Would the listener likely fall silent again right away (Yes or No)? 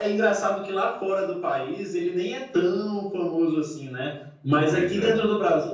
Yes